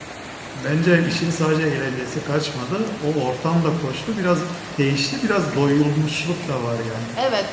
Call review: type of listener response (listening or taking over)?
taking over